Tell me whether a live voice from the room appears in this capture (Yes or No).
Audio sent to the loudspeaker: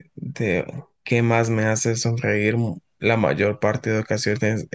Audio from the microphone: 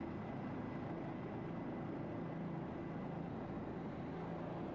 No